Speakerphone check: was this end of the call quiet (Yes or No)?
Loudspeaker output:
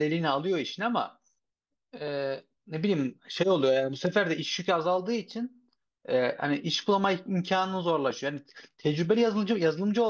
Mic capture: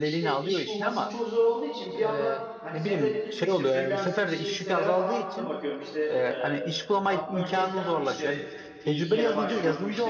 No